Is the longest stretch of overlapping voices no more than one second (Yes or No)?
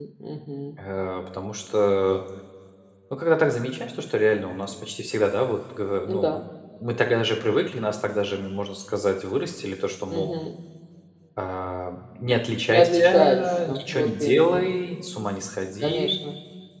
No